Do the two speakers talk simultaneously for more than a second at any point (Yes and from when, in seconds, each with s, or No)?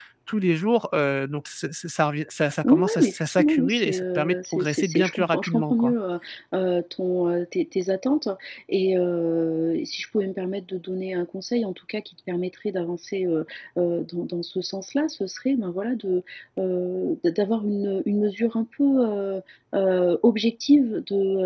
Yes, from 2.6 s